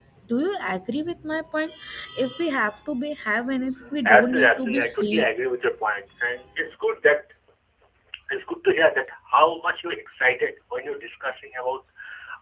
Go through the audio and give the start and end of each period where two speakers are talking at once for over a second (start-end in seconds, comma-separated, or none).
4.0-5.2